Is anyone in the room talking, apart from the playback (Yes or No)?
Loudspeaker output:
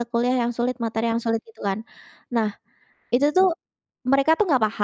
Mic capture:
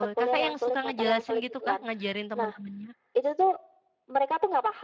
Yes